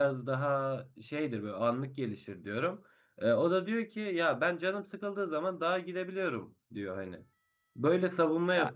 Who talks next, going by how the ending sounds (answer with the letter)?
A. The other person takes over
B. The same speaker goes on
B